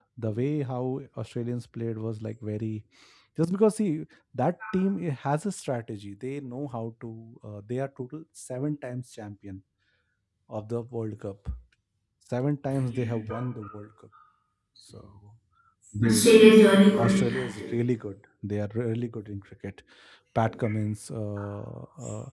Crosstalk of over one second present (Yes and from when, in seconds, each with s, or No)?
Yes, from 16.0 s